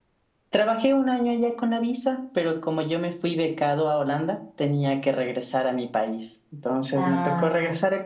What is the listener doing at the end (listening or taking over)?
listening